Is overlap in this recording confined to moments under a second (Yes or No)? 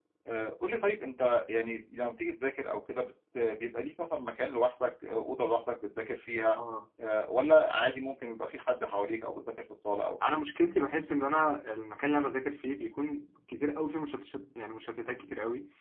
Yes